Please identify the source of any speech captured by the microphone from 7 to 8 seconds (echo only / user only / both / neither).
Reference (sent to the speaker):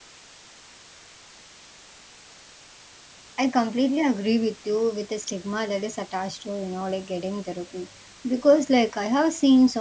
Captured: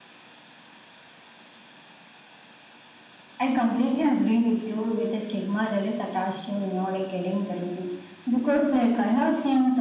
echo only